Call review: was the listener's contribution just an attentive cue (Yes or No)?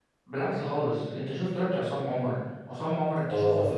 No